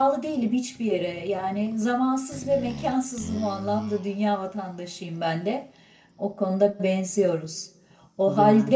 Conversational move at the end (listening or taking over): listening